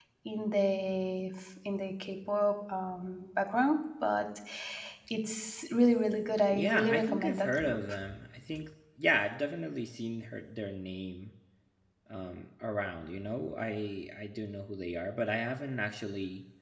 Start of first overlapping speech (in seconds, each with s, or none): 6.5 s